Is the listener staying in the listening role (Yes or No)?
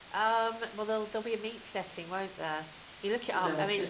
Yes